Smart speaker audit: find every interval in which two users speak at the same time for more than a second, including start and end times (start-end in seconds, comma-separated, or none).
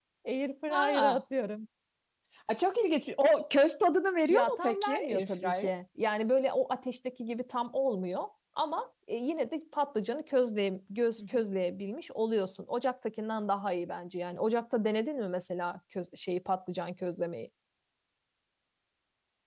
4.3-5.7